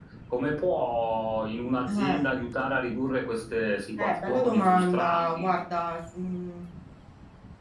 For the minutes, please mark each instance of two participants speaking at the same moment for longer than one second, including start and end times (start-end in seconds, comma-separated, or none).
4.0-5.5